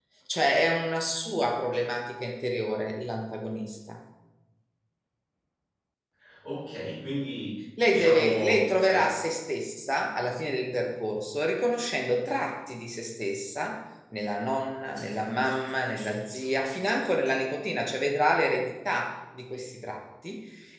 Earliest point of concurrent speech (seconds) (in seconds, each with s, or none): 7.8 s